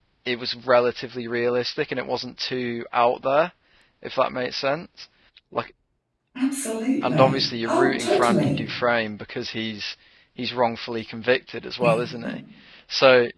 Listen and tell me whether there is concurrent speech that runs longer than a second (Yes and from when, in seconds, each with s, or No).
Yes, from 7.0 s